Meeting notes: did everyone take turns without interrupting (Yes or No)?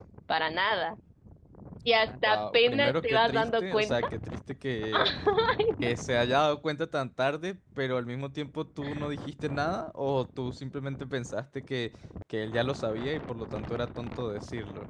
No